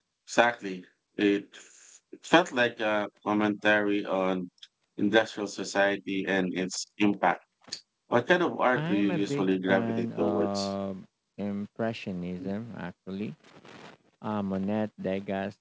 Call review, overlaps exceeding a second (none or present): present